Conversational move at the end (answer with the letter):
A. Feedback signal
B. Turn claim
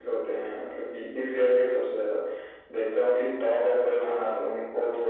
A